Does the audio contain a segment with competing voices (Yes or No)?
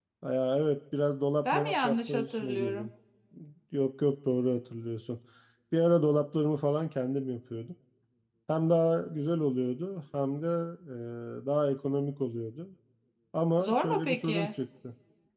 Yes